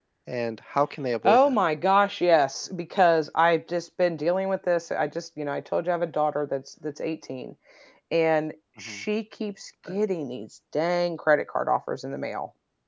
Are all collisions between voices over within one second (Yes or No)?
Yes